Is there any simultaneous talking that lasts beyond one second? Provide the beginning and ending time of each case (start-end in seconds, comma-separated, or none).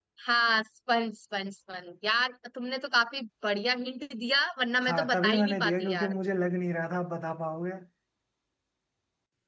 4.9-6.1